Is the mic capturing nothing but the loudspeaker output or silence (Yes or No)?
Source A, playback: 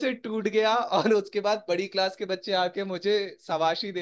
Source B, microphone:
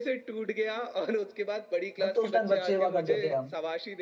No